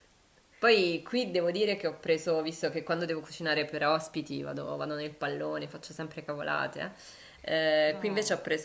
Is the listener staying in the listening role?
Yes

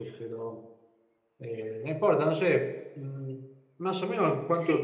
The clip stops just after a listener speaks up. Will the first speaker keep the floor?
Yes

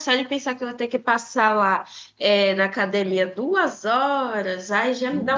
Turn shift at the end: No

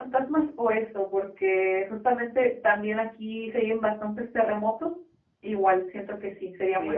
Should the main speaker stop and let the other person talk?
Yes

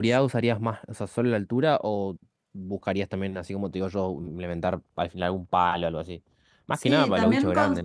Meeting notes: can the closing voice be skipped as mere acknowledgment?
No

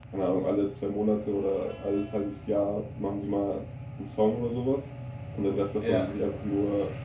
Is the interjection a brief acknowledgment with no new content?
Yes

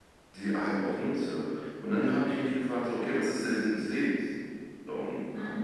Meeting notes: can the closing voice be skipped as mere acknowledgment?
Yes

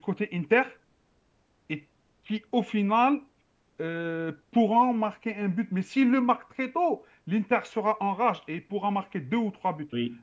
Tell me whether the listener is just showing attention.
Yes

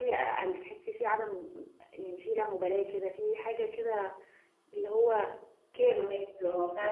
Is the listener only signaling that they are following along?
No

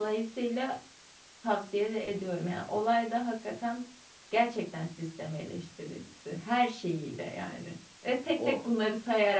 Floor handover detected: No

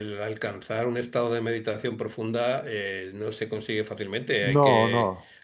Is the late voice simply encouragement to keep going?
Yes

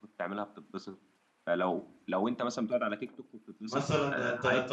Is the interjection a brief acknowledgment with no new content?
No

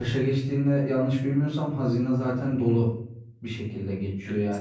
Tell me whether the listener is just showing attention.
Yes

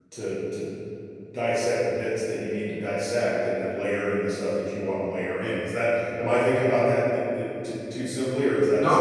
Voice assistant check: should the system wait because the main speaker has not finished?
No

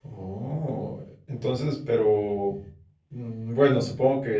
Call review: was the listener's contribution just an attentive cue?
Yes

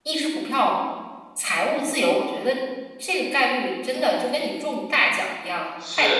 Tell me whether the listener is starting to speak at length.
Yes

